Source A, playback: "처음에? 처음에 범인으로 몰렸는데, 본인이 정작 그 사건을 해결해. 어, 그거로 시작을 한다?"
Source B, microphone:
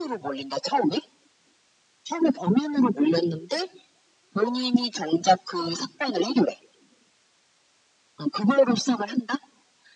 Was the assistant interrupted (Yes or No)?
No